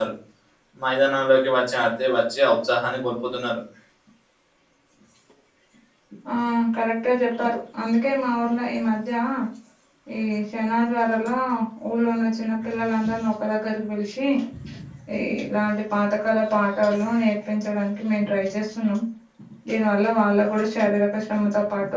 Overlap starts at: none

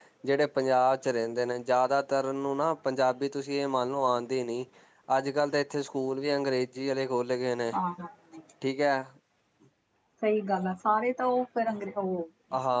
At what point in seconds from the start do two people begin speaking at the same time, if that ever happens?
none

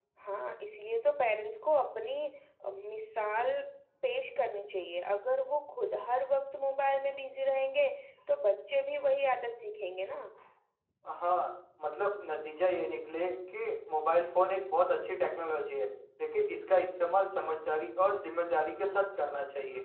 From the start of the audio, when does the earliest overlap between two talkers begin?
none

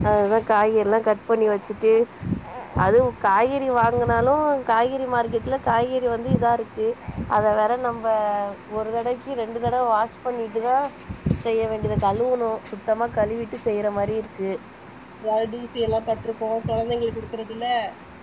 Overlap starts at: none

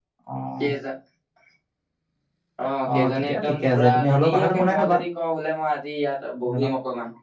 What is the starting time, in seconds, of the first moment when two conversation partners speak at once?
2.9 s

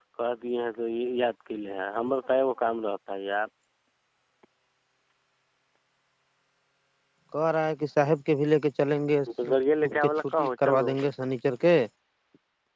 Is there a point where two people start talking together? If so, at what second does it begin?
9.3 s

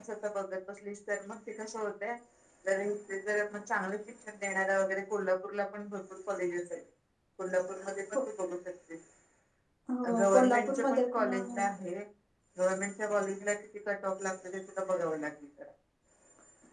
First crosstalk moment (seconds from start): 10.2 s

